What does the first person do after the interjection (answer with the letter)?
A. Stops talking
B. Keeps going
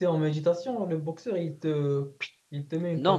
A